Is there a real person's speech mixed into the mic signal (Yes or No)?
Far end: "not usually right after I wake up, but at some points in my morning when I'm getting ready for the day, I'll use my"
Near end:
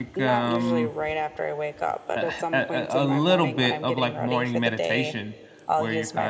Yes